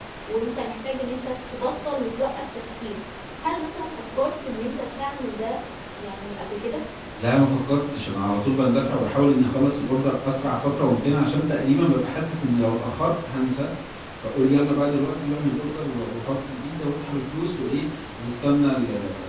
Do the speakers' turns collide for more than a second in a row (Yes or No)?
No